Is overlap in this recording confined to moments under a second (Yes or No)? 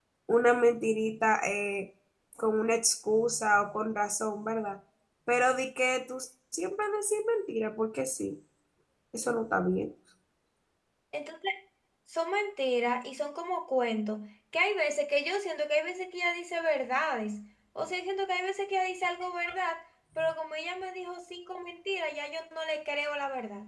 Yes